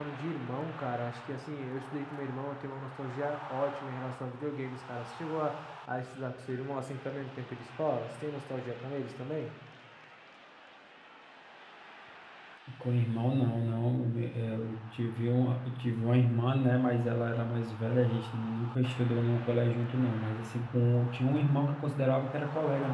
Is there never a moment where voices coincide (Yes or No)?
Yes